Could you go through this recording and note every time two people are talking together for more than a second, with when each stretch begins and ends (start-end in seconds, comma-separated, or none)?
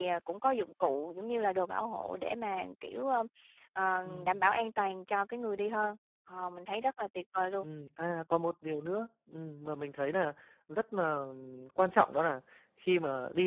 none